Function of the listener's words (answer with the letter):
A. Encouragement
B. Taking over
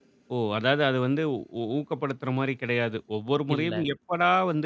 A